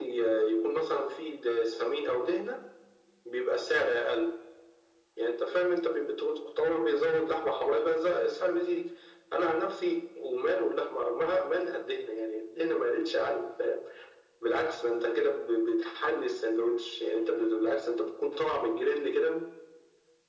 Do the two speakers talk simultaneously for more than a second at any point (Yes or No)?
No